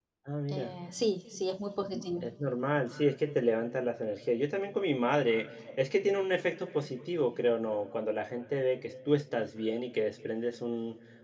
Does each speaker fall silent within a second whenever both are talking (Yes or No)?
Yes